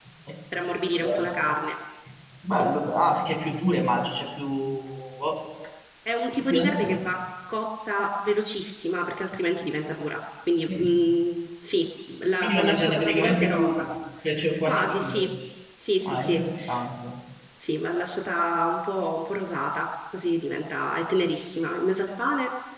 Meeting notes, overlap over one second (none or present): present